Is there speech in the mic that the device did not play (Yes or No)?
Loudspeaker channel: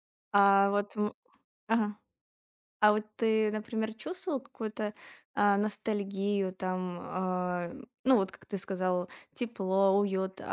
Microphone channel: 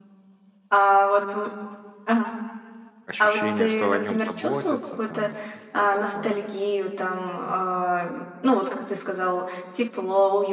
Yes